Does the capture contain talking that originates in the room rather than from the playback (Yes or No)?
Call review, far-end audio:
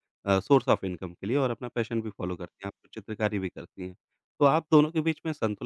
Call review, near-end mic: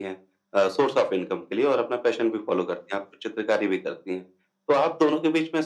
No